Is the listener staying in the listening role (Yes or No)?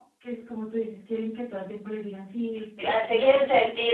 No